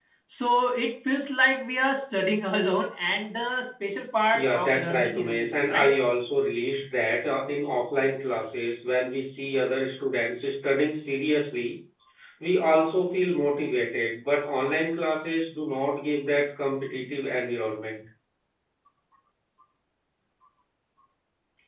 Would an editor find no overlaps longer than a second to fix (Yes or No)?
No